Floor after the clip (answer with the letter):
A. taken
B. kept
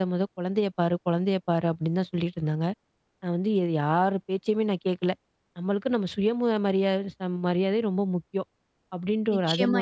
A